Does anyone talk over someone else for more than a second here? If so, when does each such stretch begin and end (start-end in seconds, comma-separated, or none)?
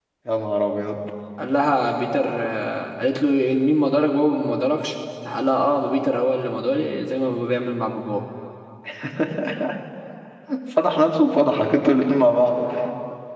none